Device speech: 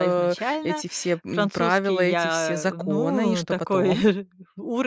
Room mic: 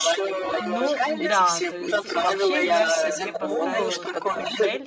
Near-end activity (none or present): present